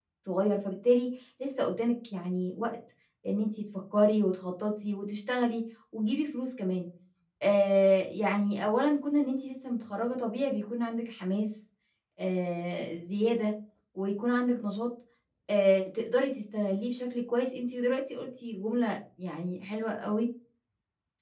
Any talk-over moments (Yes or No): No